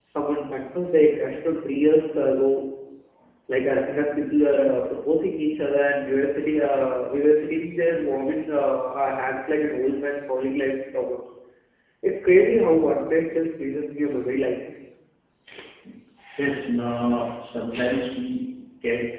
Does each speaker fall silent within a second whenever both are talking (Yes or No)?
Yes